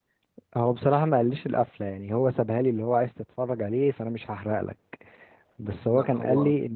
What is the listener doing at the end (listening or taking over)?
listening